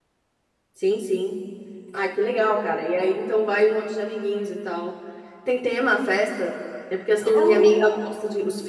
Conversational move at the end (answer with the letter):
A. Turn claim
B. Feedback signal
B